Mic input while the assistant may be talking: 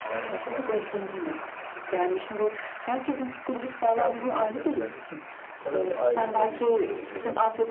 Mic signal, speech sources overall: both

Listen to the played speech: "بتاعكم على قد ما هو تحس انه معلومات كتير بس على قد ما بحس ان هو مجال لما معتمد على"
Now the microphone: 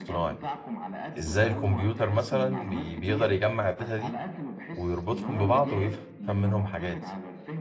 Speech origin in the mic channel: both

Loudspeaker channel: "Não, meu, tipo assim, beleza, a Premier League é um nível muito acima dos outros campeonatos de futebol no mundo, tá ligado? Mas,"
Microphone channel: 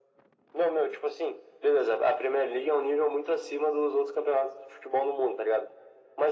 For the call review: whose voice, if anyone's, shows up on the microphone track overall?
echo only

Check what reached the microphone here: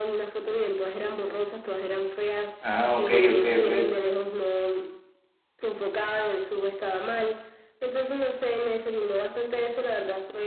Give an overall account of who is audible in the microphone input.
both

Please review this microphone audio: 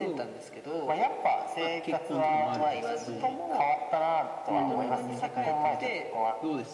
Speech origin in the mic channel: both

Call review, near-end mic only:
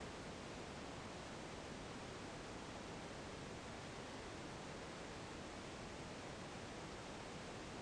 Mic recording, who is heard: neither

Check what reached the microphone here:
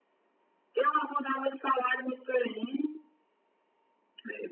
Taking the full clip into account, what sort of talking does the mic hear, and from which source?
echo only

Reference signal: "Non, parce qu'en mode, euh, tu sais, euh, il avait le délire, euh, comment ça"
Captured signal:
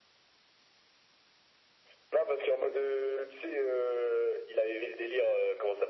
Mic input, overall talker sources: echo only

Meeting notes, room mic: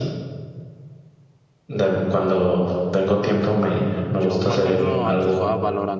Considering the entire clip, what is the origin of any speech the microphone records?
both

